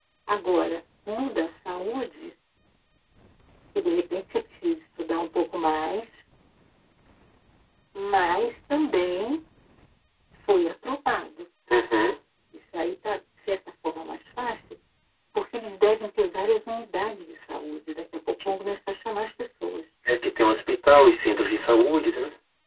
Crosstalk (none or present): none